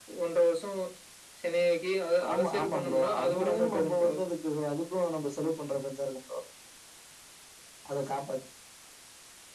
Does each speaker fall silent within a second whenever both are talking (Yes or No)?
No